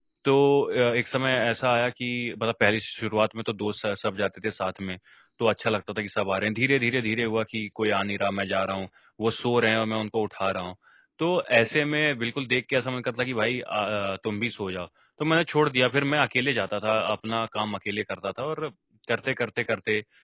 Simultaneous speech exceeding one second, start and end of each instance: none

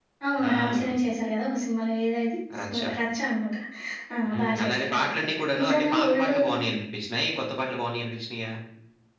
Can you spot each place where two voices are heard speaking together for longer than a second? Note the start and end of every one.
4.3-6.3

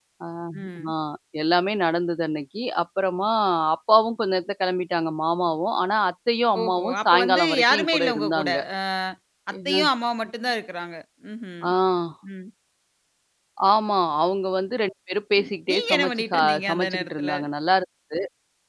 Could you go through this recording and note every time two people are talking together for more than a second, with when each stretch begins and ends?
6.6-8.6, 15.4-17.3

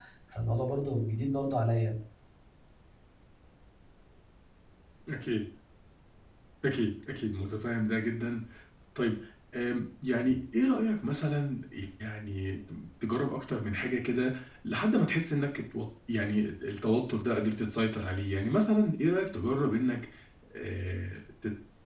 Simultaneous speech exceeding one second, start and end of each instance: none

